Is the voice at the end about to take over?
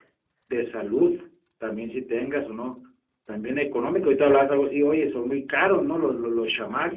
Yes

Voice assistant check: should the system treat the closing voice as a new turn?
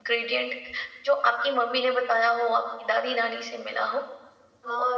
Yes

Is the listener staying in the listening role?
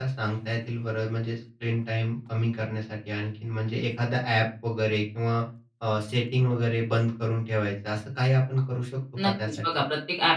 No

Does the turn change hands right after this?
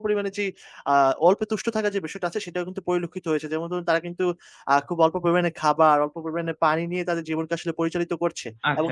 Yes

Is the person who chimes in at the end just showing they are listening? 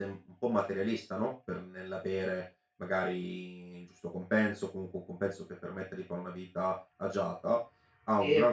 Yes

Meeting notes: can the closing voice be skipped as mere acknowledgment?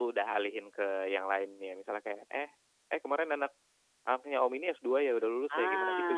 No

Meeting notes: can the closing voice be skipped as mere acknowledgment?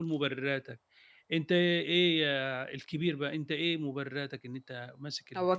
No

